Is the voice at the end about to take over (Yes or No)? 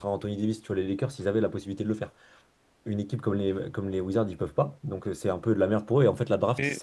No